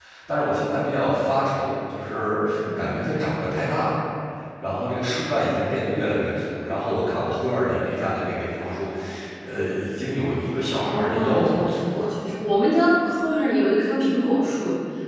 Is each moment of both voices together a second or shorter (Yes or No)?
No